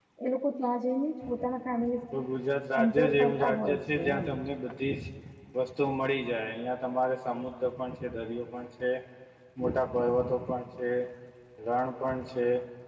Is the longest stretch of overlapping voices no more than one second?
No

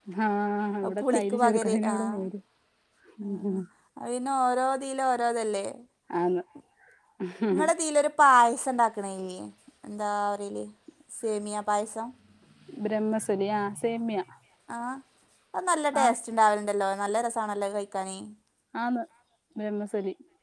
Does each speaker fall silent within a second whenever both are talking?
No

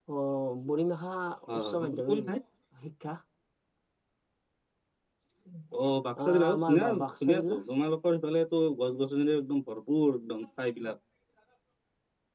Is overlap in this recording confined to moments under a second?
No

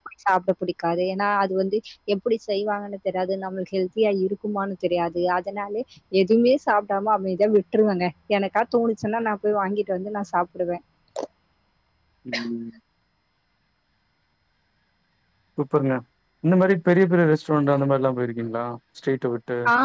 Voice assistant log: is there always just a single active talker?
Yes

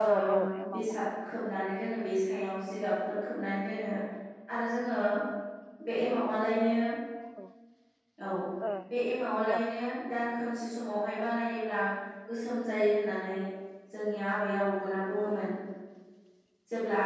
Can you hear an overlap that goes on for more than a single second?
No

